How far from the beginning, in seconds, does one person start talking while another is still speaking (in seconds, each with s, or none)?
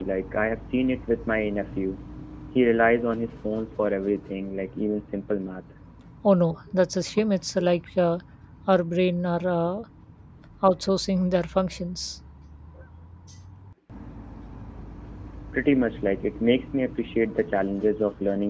none